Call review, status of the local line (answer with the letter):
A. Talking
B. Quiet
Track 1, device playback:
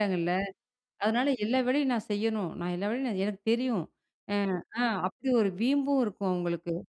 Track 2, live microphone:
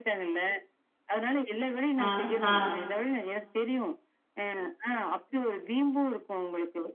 A